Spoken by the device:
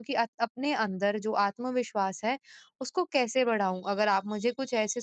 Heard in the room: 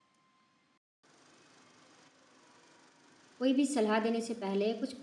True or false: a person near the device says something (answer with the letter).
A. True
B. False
A